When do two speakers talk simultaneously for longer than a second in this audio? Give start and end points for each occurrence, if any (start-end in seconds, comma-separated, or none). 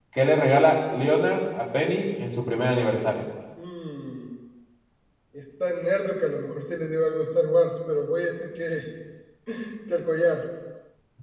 none